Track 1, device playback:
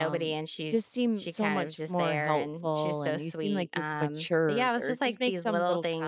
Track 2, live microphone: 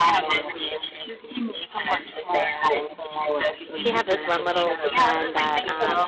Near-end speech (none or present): present